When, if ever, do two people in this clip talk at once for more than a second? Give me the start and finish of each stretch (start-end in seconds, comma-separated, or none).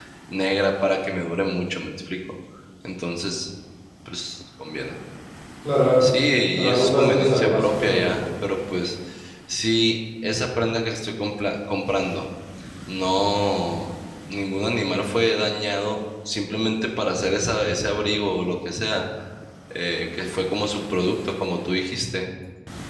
6.7-8.2